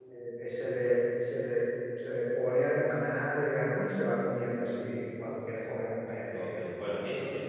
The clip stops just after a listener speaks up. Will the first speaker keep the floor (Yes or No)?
No